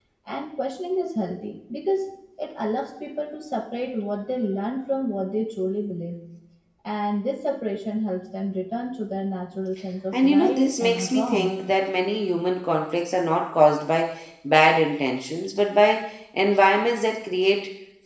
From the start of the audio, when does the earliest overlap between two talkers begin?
10.1 s

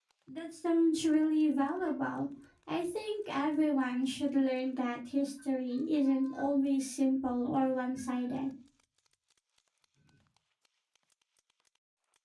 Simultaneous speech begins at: none

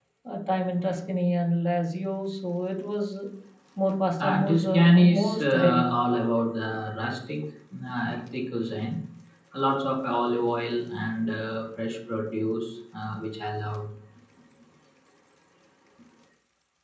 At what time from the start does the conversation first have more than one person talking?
4.2 s

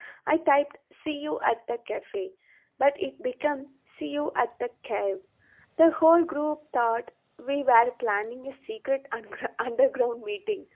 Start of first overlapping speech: none

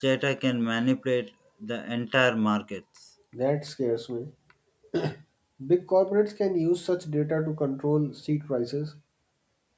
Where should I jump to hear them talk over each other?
none

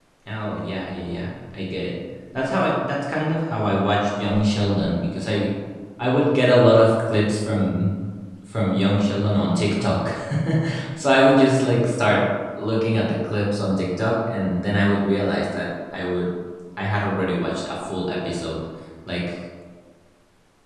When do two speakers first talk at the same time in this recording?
none

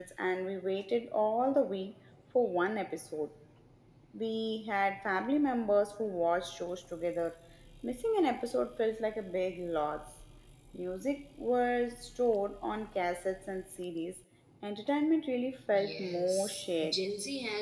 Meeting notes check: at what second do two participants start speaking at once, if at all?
15.7 s

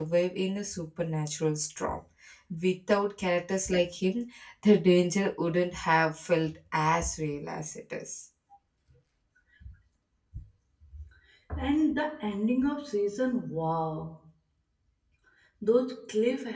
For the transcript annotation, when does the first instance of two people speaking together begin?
none

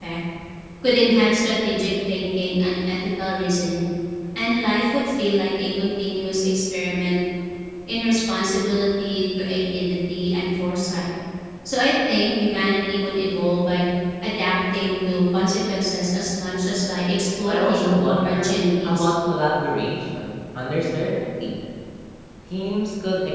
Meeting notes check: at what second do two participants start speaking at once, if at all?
17.5 s

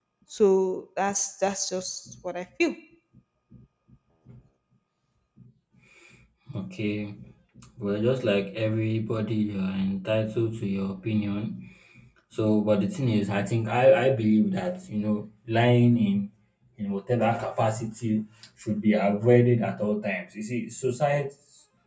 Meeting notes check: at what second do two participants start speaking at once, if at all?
none

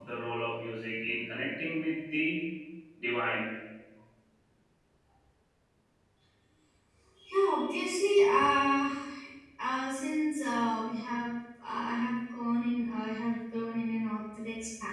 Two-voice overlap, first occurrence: none

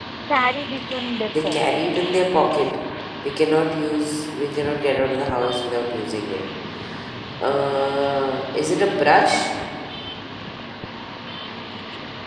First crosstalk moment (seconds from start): 1.3 s

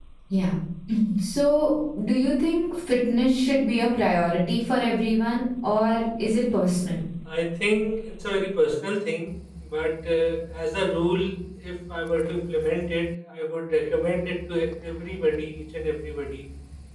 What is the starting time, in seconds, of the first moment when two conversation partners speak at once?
none

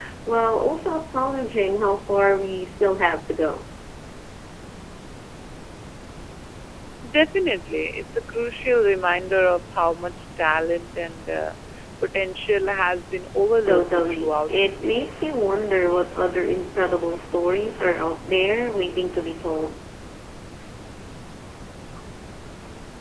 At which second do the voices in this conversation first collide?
13.7 s

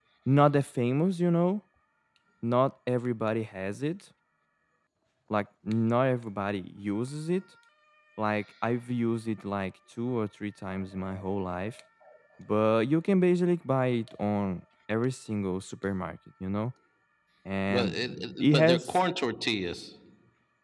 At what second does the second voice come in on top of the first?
17.7 s

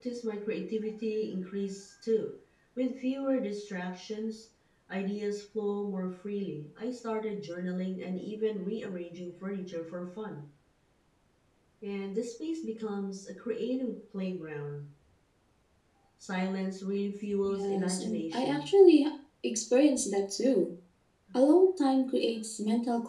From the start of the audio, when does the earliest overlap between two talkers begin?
17.4 s

